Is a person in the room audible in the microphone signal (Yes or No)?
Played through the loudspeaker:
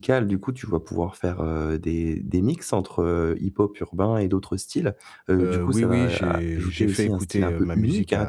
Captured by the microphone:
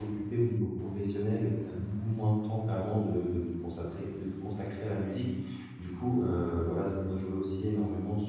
Yes